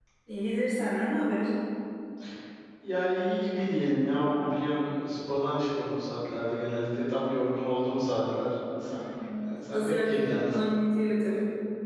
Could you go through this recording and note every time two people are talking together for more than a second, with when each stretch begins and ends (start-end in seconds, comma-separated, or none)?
9.4-10.7